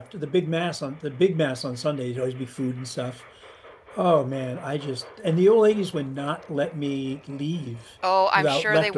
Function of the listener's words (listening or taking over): taking over